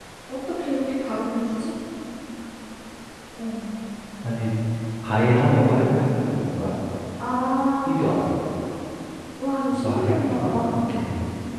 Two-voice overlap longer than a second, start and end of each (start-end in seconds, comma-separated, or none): 9.7-11.0